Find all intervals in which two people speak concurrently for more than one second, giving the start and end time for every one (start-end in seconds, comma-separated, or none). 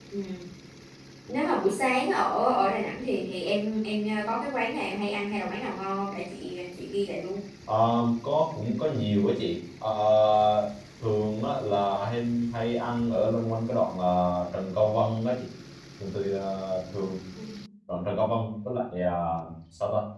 none